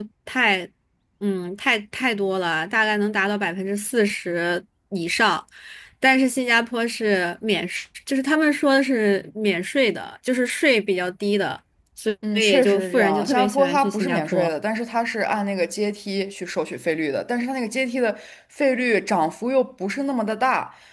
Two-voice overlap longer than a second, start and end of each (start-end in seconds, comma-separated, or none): 12.3-14.5